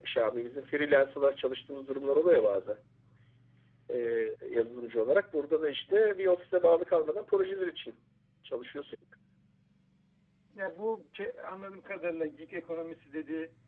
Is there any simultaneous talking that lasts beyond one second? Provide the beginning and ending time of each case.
none

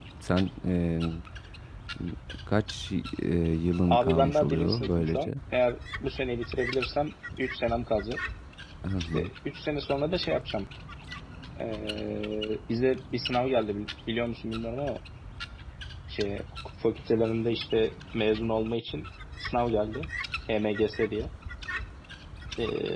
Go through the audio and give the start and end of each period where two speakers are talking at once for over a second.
3.9-5.3

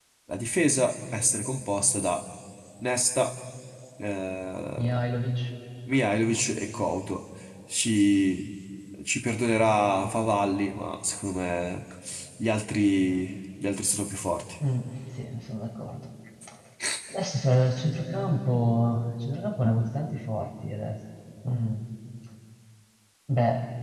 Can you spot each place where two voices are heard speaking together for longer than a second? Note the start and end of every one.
none

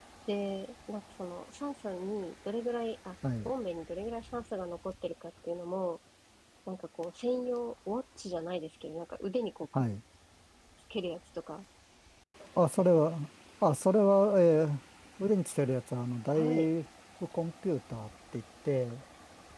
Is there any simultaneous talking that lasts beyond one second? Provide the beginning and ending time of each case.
none

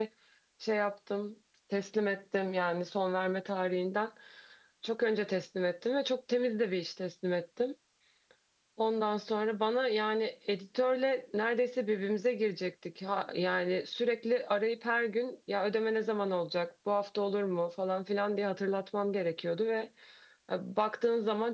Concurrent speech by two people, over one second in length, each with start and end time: none

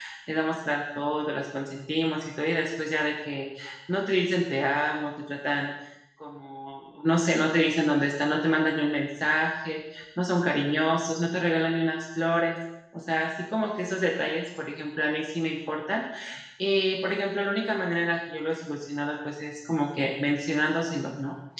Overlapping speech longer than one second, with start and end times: none

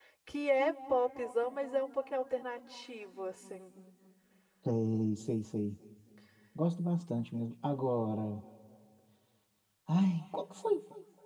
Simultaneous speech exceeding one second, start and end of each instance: none

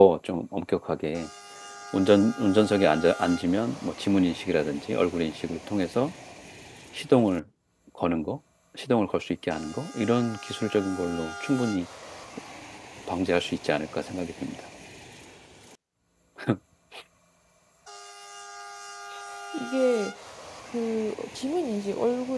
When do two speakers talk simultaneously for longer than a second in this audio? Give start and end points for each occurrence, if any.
none

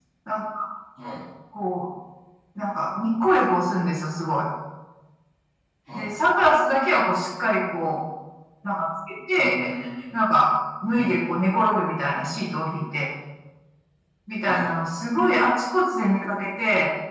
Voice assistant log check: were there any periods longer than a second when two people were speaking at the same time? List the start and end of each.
none

